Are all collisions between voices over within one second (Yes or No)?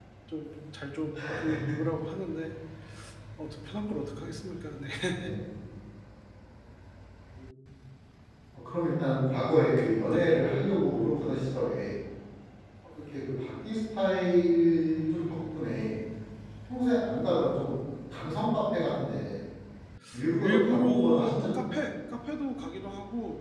No